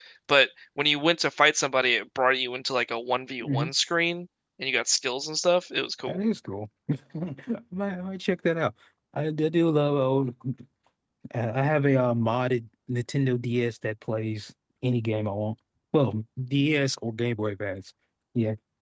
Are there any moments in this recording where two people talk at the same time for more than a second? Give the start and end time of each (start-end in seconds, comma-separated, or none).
none